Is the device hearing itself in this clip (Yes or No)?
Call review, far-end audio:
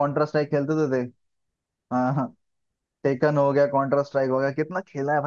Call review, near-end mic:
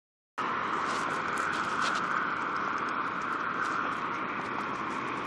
No